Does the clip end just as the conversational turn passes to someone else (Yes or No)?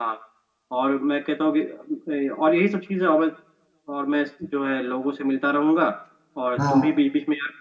No